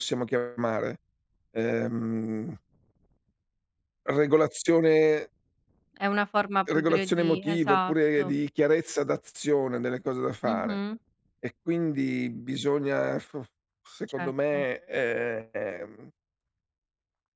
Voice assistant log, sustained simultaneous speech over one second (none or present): present